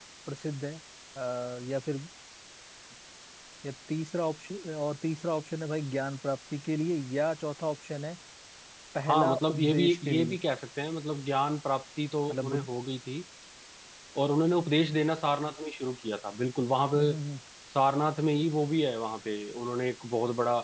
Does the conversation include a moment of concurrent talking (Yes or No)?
Yes